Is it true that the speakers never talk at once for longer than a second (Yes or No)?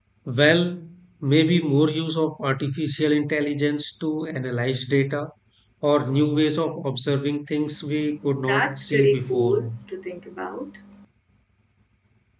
No